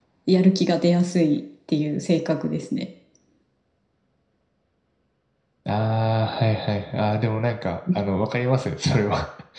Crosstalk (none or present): none